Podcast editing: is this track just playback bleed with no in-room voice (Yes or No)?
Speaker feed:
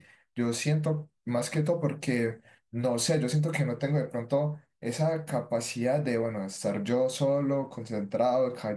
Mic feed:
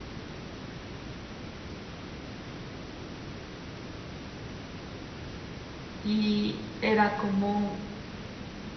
No